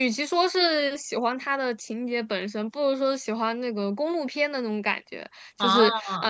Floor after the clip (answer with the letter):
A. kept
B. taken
A